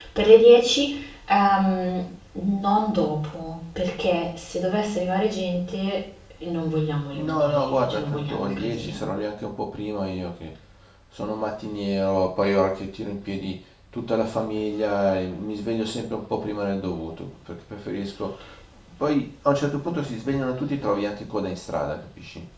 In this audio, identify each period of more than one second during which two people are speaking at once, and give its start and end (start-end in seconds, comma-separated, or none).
7.1-9.0